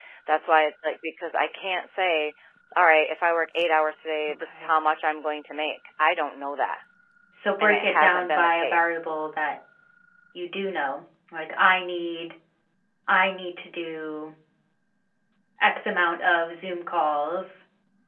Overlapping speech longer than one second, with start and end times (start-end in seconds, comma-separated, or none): 7.6-9.0